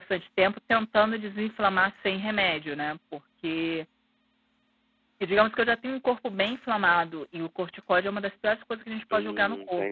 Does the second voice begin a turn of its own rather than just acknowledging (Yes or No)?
Yes